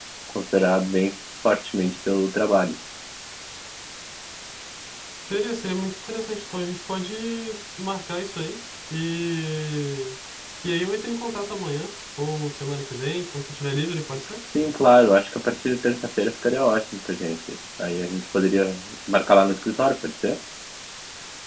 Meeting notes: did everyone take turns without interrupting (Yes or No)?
Yes